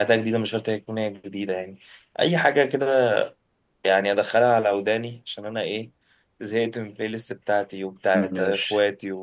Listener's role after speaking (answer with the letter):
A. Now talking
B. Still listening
B